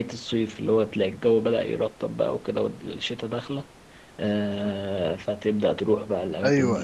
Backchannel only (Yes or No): No